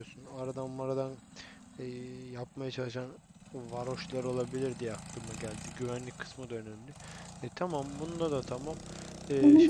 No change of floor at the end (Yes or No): No